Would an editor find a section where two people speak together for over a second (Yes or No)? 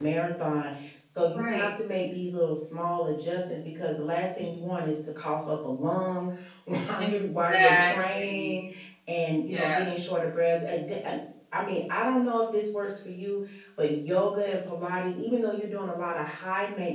Yes